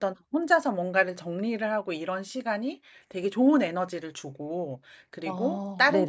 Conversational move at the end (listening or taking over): listening